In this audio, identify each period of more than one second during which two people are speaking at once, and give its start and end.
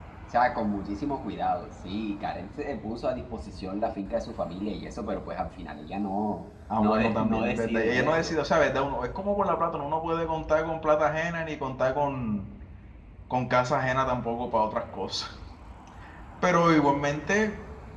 6.8-8.4

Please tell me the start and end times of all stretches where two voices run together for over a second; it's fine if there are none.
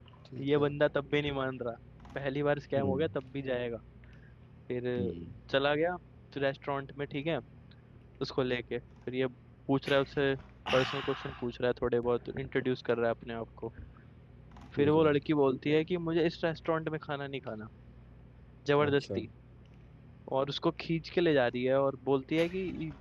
none

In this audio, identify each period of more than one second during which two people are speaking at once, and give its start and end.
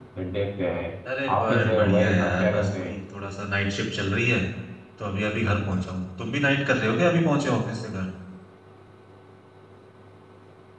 1.3-2.9

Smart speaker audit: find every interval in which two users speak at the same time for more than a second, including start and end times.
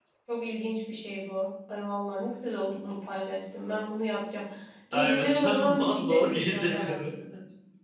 4.9-7.0

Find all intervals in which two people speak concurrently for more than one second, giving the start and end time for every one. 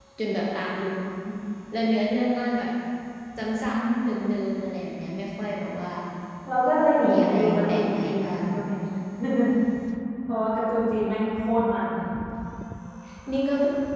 7.1-8.4

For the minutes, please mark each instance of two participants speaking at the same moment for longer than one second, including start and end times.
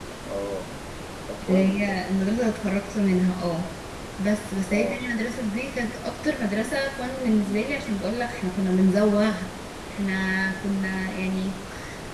none

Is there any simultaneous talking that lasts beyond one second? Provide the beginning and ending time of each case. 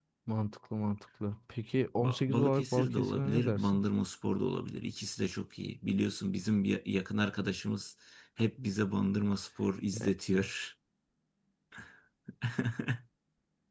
2.0-3.8

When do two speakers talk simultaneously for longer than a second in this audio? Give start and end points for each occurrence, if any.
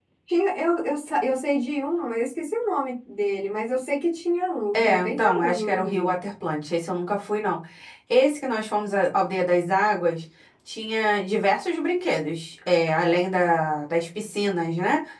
4.7-6.1

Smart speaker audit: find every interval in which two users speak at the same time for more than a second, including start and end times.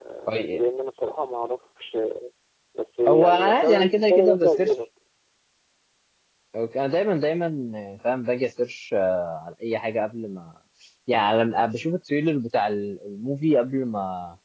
3.1-4.7

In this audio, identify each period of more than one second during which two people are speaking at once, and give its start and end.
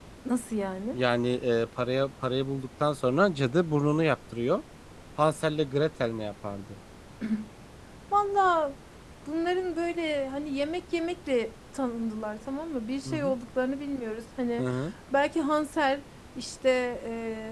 none

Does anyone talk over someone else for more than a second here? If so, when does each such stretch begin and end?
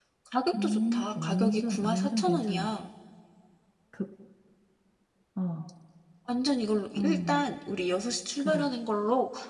0.6-2.7

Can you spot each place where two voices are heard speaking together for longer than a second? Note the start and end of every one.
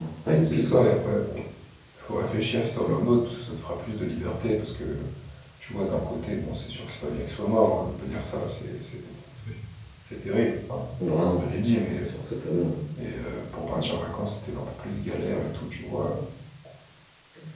none

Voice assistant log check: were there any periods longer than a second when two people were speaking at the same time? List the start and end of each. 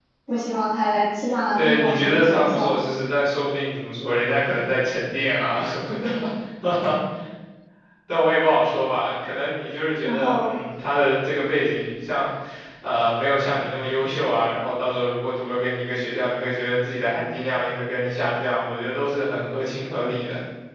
1.6-2.8

